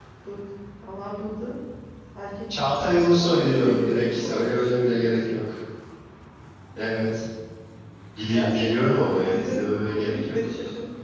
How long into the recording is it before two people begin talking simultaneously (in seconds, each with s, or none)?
2.7 s